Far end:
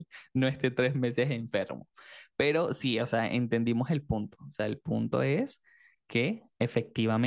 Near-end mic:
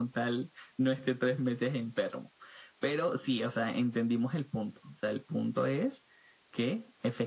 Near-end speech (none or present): none